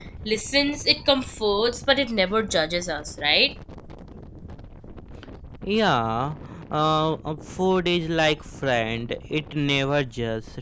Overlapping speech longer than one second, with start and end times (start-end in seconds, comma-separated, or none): none